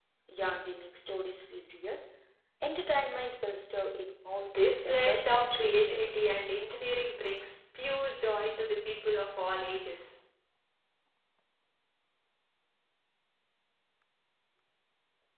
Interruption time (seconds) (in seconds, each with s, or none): 4.4 s